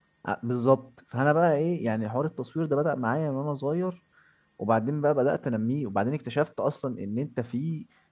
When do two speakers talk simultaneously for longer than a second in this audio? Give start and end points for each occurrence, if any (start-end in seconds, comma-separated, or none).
none